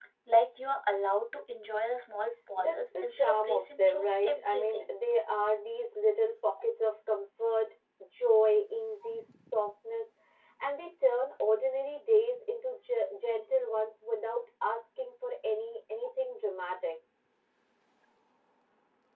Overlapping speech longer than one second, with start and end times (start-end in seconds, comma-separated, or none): 2.5-4.9